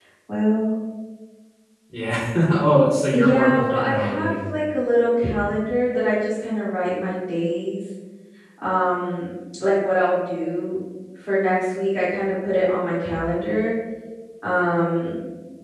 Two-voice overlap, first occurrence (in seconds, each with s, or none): 3.1 s